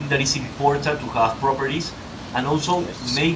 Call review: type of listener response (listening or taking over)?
listening